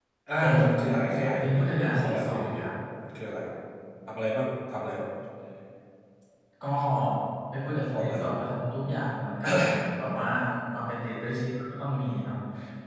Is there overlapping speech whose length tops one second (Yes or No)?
Yes